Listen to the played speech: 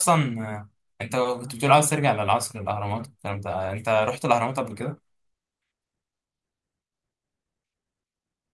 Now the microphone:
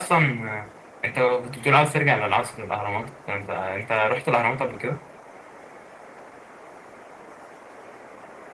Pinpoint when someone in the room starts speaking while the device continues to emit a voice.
none

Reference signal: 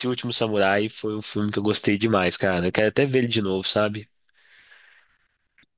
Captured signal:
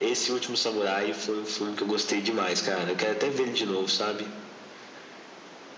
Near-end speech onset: none

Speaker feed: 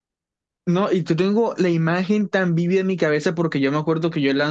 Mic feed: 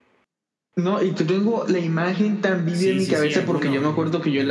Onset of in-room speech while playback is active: 3 s

